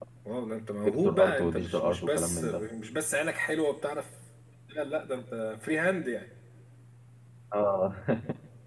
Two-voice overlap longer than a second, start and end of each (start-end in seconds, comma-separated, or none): 0.8-2.6